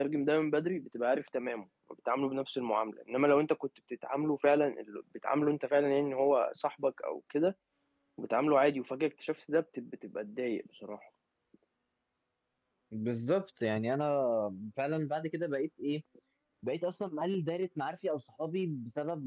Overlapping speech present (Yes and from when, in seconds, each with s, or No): No